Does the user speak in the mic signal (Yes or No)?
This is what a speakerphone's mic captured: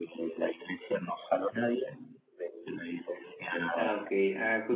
Yes